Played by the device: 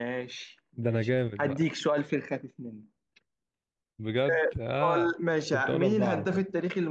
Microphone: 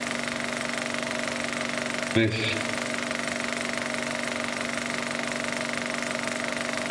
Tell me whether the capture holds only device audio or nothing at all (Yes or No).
No